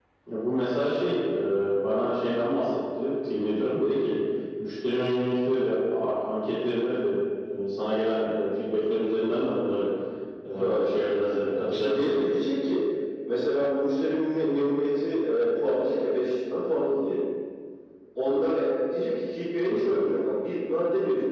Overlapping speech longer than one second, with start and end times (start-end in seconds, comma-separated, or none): none